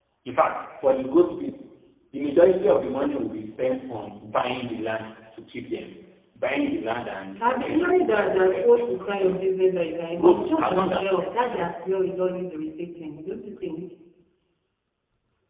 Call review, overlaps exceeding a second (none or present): present